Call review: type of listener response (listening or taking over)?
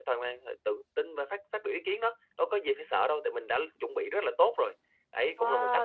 taking over